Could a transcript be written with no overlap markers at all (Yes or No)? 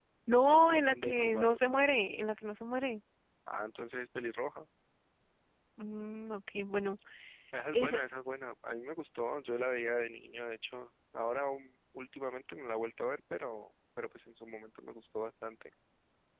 No